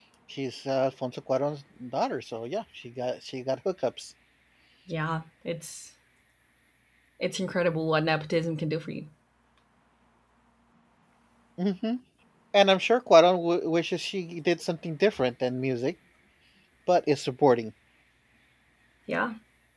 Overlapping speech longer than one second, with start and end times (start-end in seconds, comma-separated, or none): none